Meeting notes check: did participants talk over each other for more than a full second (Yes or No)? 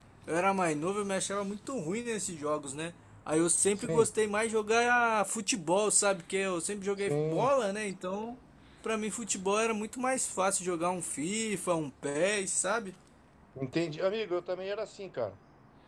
No